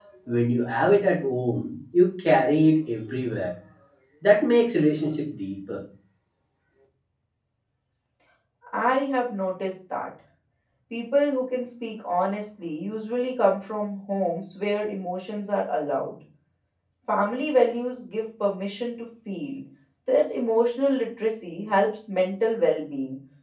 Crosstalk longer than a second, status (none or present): none